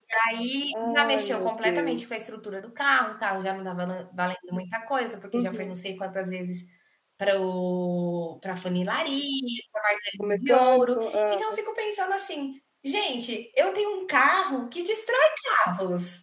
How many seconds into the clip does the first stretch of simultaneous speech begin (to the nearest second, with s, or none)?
1 s